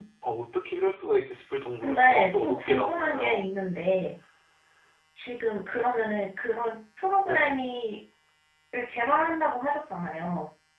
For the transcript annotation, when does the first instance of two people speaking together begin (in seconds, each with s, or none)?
1.8 s